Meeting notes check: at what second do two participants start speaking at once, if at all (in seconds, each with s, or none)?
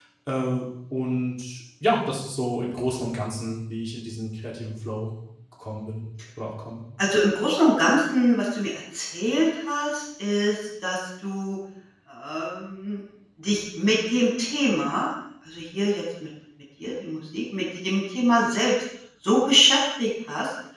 none